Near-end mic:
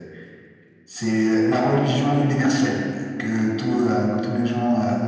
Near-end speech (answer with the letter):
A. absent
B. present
A